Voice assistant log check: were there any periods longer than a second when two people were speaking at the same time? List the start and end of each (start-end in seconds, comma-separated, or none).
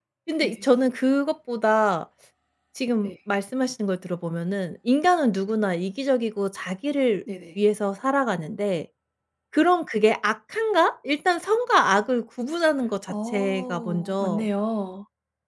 13.1-14.5